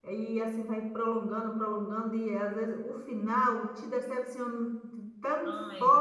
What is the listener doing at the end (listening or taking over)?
listening